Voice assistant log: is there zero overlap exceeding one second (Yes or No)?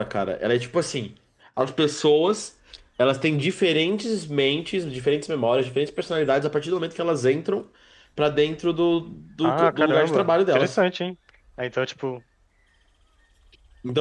No